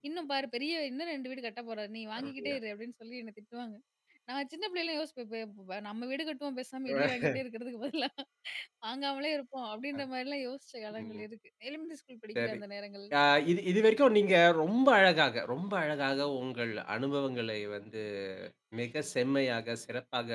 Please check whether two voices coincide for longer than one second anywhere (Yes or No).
No